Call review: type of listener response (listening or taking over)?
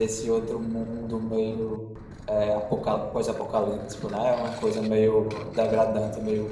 listening